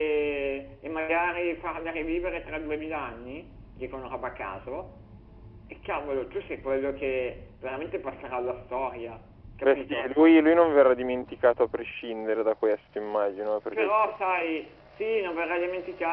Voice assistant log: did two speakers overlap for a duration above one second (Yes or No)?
No